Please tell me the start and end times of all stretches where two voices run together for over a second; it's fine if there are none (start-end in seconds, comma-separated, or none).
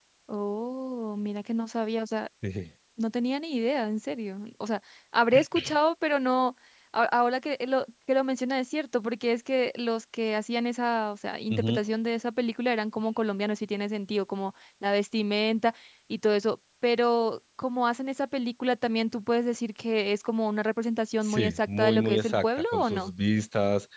21.2-23.1